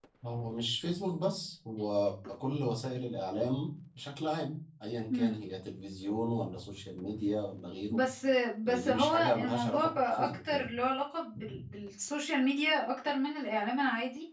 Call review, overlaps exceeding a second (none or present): present